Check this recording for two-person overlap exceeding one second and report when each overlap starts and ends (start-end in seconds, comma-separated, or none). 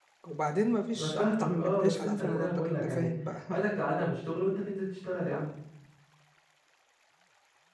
1.0-3.1